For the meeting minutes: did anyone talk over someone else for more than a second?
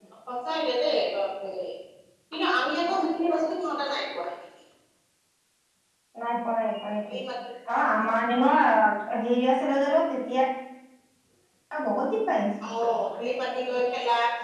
No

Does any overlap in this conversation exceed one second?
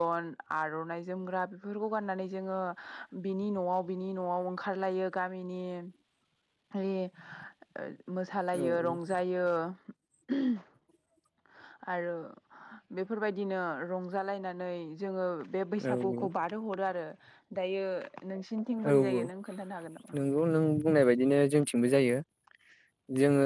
No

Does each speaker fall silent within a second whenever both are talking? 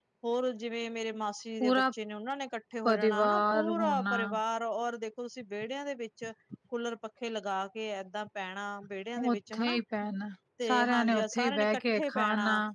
No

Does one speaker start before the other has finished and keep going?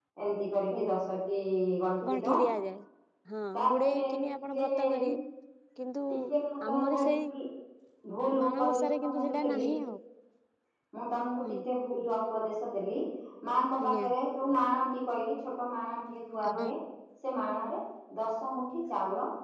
Yes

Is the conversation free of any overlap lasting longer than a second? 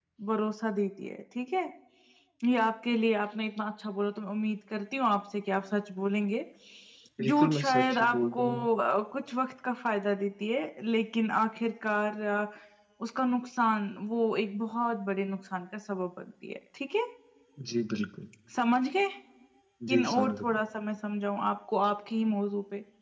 No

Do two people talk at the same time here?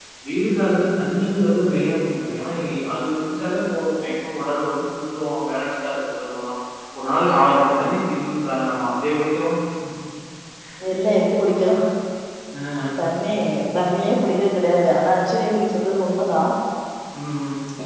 No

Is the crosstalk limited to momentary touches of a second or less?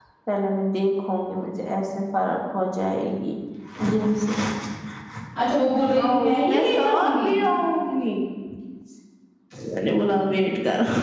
No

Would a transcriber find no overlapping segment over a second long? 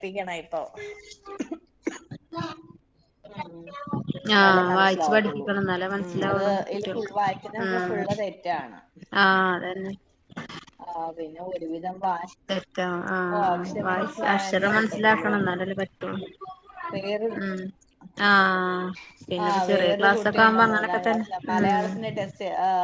No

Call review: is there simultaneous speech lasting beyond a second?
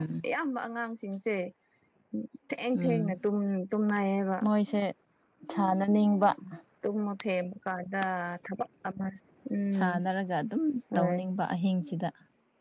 No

